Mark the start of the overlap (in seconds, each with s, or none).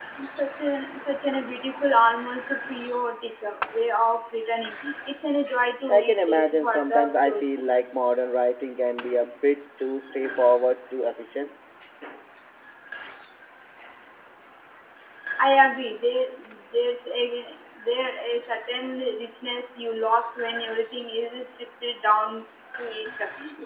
5.9 s